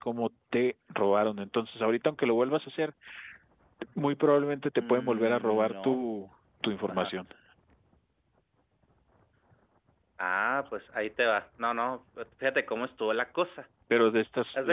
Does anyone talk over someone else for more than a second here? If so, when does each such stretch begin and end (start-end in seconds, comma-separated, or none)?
4.8-6.0